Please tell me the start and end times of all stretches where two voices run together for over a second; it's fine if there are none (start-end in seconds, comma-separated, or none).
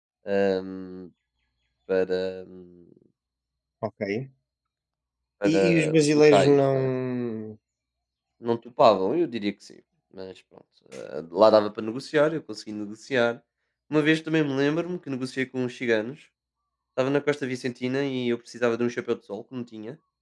5.5-6.9